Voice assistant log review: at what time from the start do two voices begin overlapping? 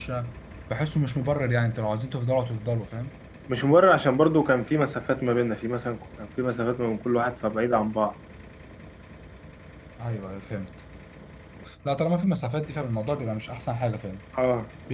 none

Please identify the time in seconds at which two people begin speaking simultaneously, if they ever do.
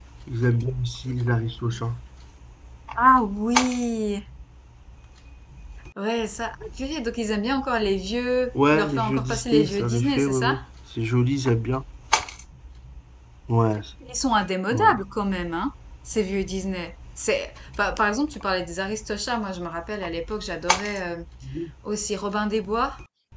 9 s

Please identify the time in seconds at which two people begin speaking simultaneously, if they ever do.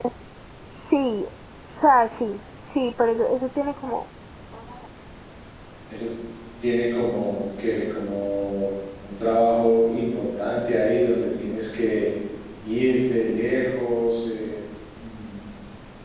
none

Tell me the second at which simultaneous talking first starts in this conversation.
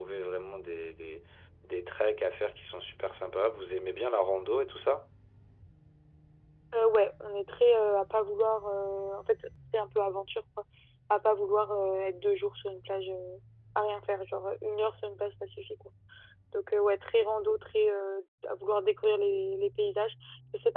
none

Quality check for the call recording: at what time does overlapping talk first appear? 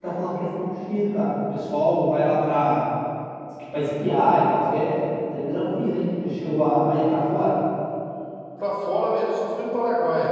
none

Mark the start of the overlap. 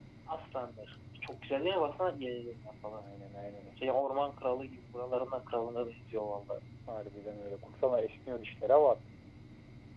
none

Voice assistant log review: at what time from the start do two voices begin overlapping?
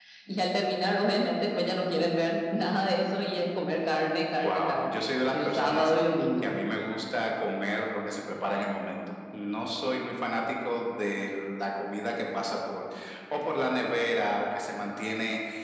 4 s

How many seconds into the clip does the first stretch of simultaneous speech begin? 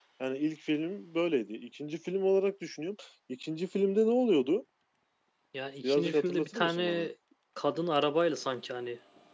6 s

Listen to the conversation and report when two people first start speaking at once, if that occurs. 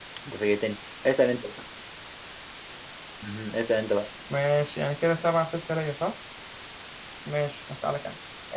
none

